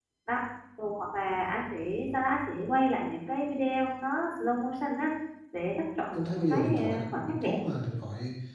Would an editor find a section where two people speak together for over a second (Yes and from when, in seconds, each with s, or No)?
Yes, from 6.1 s